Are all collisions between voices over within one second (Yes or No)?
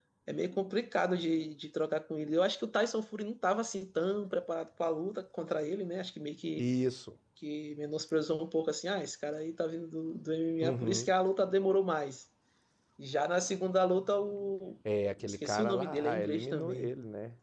No